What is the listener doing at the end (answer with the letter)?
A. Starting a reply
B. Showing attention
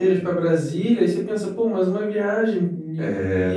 A